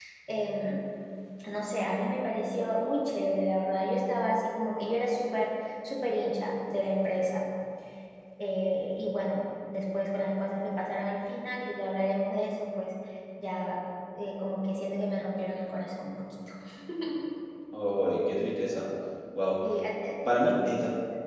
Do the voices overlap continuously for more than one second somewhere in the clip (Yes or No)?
No